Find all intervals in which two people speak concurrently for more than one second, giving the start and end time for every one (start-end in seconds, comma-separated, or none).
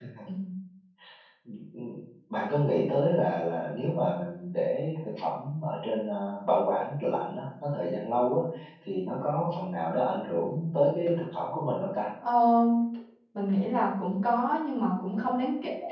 none